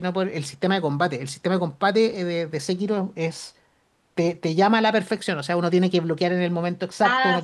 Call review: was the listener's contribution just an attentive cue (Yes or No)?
Yes